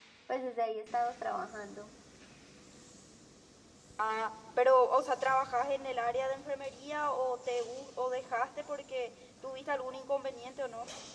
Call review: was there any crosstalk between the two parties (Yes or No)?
No